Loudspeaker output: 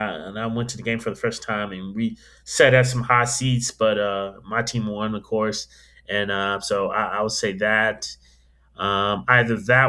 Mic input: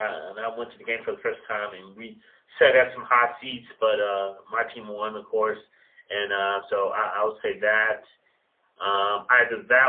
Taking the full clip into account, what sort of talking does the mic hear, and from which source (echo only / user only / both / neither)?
echo only